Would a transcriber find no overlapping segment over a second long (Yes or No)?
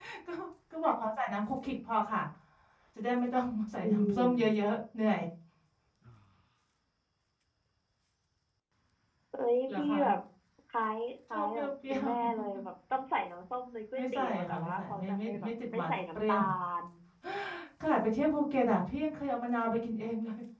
No